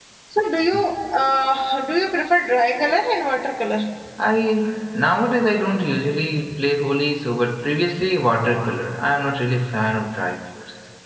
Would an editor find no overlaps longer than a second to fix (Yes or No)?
Yes